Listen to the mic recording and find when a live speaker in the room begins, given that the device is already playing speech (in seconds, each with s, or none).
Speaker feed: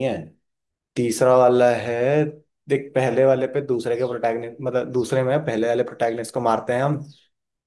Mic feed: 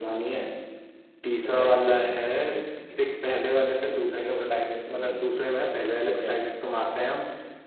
1.4 s